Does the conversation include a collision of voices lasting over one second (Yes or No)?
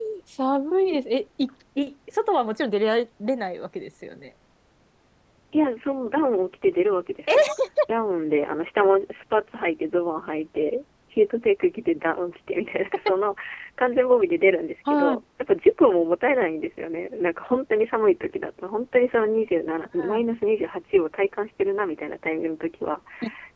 No